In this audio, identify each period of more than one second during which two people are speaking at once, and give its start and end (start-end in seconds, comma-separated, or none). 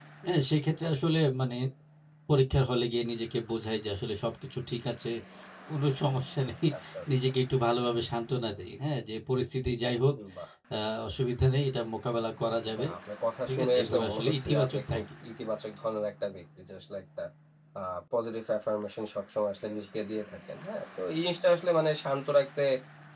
13.5-15.0